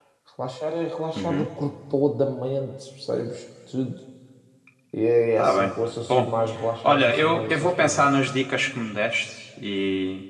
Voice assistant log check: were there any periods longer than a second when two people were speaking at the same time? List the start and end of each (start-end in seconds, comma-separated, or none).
6.8-8.1